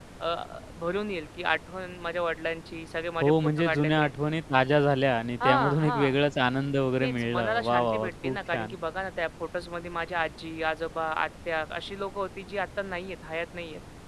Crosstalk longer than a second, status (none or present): present